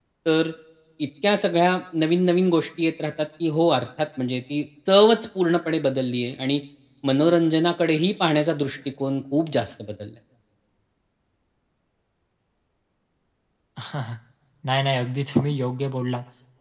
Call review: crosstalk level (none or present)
none